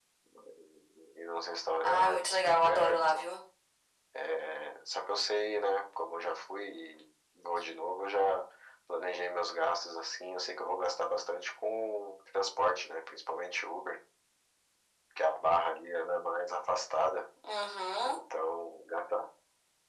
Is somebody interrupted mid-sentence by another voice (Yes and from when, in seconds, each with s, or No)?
Yes, from 1.8 s